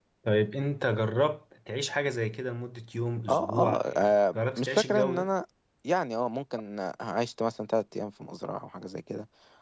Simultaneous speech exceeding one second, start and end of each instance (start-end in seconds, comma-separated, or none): 3.3-5.3